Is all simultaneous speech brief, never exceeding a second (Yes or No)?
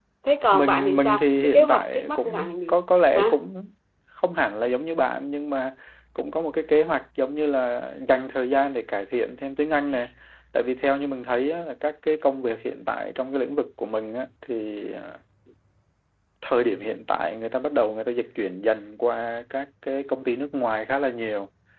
No